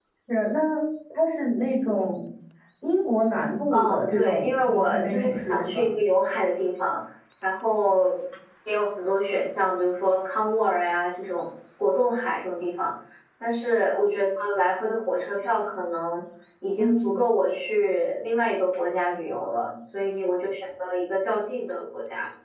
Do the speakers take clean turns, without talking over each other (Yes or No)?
No